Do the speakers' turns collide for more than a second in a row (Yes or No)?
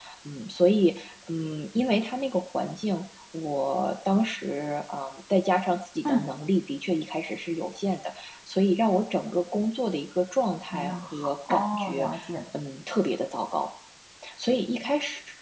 Yes